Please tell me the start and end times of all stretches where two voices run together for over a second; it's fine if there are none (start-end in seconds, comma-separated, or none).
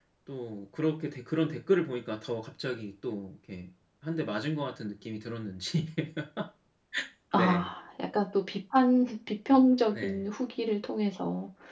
none